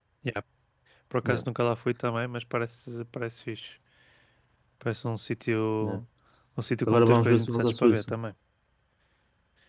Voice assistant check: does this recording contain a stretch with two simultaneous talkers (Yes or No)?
Yes